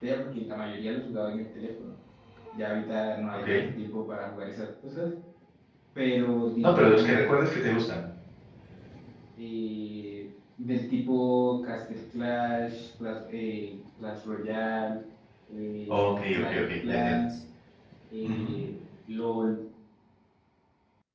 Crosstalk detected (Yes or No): Yes